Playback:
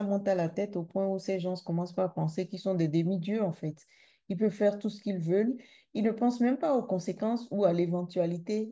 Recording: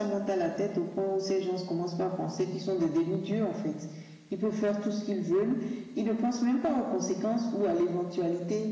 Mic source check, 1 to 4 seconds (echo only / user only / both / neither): echo only